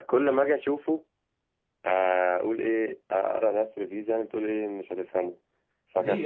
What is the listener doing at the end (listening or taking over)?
taking over